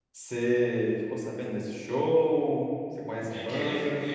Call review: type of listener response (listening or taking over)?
taking over